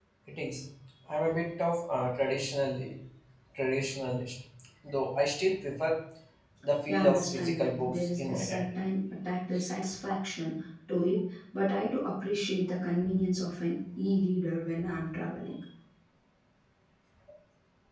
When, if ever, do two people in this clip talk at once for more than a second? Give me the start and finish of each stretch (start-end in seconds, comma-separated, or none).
6.9-8.7